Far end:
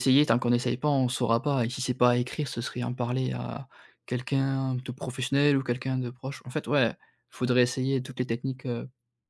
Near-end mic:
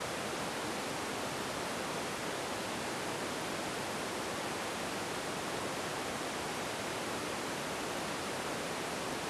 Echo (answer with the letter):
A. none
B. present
A